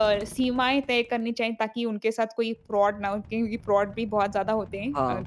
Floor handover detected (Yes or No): Yes